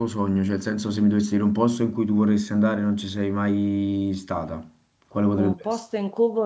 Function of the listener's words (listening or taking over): taking over